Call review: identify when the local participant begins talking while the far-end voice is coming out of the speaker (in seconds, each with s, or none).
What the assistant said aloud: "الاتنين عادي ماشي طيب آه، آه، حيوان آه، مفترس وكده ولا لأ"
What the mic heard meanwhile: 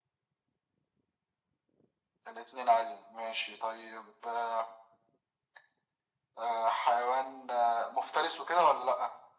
none